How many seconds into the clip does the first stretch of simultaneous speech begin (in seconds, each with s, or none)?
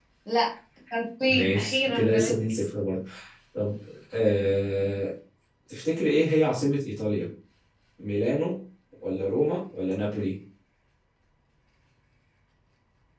1.3 s